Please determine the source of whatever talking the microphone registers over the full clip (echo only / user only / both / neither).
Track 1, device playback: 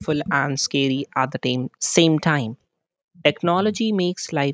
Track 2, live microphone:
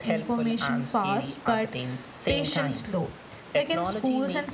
both